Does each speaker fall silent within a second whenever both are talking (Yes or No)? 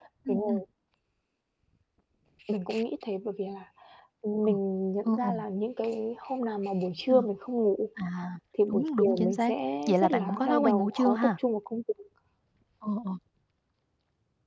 No